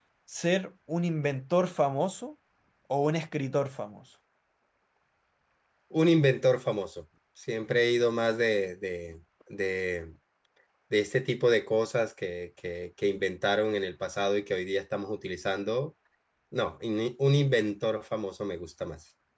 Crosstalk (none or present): none